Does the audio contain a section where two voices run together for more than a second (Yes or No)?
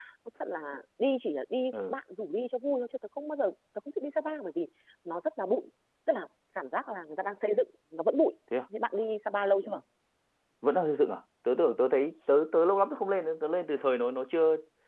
No